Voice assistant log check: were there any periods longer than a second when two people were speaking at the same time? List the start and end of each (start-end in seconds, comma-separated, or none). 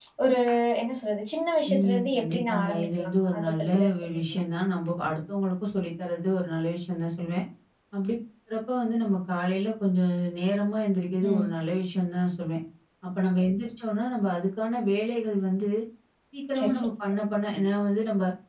1.7-4.4